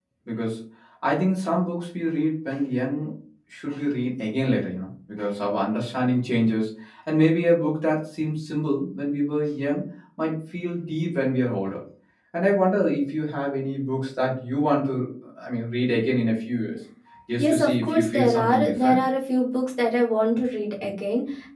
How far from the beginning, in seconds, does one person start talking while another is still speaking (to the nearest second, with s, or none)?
17 s